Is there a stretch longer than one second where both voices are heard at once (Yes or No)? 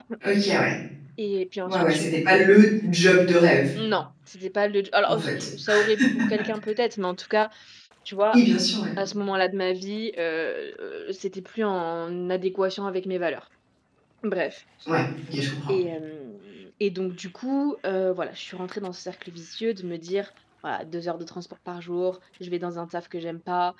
No